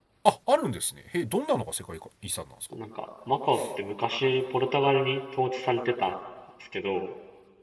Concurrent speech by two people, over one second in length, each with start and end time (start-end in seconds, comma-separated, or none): none